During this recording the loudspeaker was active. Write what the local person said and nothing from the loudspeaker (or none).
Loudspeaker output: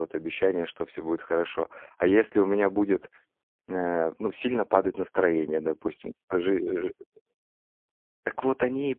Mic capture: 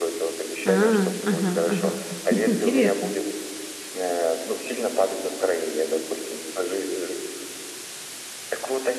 А, ага, ага, интересно.